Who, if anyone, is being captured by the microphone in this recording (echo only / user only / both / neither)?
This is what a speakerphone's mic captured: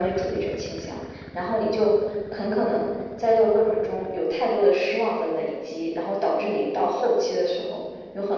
echo only